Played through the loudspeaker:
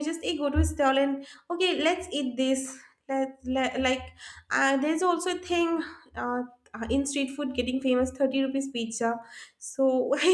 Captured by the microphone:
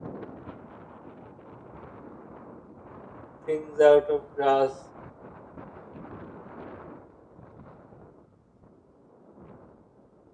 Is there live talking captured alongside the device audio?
Yes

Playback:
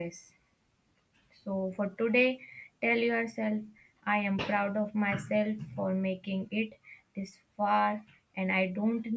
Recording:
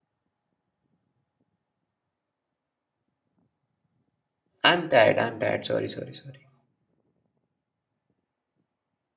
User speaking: Yes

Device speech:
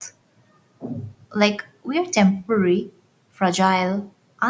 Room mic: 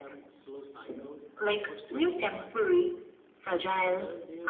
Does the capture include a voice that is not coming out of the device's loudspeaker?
Yes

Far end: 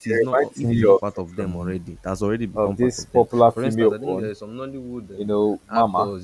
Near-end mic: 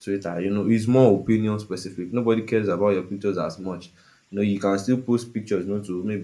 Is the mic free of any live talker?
No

